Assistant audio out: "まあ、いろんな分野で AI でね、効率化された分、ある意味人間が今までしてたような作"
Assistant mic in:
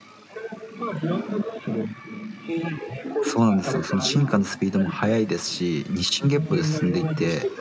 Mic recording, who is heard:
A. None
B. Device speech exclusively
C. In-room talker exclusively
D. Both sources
D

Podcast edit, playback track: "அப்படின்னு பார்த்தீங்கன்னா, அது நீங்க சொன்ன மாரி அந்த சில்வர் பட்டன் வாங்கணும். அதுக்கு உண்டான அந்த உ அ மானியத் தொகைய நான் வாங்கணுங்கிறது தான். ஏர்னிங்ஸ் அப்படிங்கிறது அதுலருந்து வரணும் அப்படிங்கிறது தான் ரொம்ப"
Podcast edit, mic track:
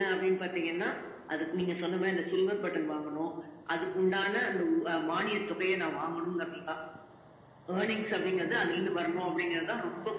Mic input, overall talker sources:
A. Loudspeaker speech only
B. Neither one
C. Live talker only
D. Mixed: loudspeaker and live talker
A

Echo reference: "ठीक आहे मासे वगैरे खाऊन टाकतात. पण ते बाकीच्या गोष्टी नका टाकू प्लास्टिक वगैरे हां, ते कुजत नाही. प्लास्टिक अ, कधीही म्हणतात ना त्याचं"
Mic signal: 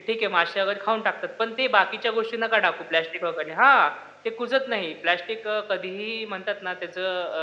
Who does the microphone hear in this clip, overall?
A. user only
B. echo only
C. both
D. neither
B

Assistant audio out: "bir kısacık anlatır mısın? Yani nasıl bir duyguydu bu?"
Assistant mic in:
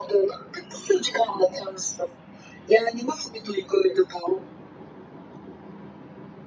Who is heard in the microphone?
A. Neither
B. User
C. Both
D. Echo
D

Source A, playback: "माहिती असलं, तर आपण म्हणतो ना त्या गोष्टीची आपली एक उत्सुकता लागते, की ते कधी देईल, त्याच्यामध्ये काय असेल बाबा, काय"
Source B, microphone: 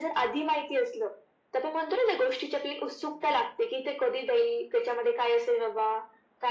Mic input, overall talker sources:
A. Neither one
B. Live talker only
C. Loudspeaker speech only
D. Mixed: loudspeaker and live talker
C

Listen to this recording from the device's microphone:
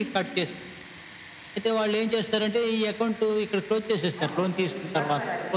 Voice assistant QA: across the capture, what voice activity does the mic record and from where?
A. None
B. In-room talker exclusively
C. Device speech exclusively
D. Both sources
D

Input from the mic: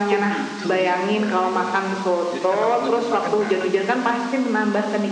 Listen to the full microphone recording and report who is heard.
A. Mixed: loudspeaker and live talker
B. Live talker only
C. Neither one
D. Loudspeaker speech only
A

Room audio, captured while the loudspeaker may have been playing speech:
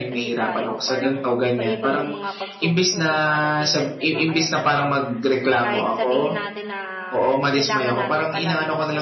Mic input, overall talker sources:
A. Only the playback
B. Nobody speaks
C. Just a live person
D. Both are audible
D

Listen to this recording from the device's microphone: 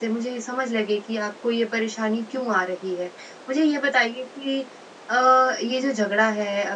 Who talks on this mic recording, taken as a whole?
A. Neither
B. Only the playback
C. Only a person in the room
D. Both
C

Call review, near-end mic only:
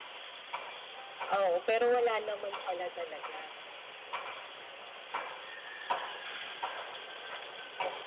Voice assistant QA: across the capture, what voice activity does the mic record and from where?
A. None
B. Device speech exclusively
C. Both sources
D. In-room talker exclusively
D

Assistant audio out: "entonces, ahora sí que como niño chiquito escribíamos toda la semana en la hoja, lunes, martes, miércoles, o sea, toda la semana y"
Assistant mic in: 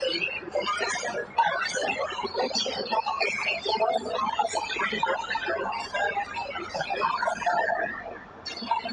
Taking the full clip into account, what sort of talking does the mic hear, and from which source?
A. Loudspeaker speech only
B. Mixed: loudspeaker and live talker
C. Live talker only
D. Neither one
A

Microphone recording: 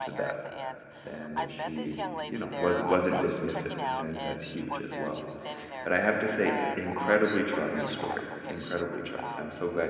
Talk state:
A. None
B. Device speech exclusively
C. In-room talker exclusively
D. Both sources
D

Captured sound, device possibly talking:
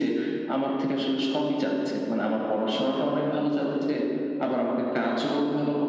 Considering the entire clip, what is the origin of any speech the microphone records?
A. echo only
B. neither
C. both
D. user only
A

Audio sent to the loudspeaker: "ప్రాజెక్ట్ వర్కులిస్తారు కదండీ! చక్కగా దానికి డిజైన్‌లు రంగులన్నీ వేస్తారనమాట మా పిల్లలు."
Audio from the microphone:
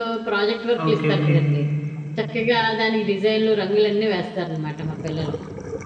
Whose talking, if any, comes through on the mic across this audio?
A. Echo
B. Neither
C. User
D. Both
D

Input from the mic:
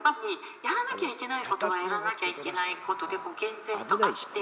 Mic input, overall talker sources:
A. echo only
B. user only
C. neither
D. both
D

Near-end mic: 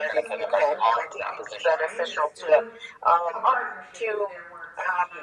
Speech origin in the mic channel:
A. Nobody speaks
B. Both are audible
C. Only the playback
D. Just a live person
B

